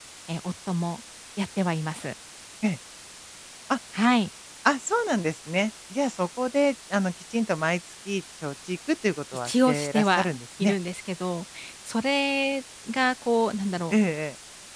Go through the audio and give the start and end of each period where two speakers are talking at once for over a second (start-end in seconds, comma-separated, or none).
9.4-10.7